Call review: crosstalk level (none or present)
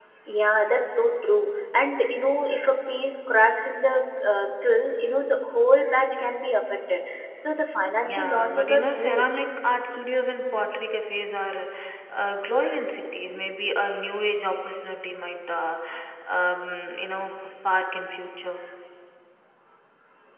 present